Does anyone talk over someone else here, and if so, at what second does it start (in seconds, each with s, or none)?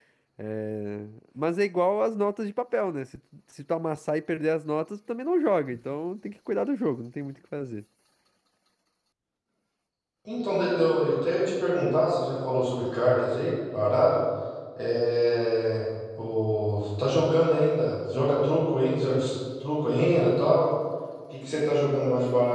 none